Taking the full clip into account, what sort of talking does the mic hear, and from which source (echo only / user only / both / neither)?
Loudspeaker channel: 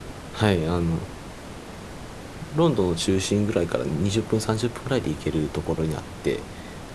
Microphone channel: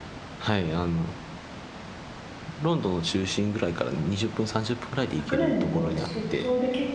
both